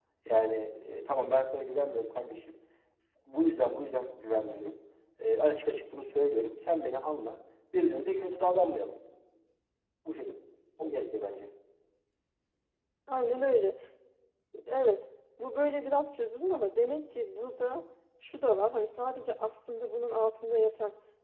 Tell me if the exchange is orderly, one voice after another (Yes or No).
Yes